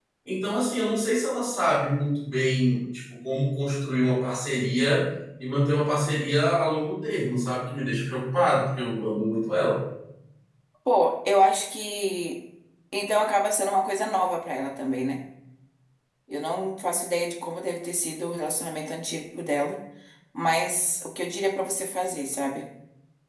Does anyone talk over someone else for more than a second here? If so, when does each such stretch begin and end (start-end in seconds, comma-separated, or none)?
none